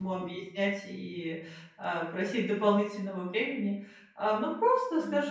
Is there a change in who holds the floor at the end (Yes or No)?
No